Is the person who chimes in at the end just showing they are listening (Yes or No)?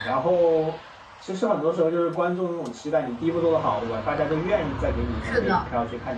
Yes